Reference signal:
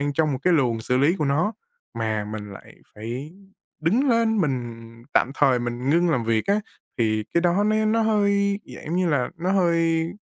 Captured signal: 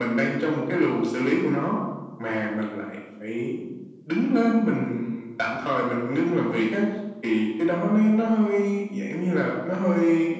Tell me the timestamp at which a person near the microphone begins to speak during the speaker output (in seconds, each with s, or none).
none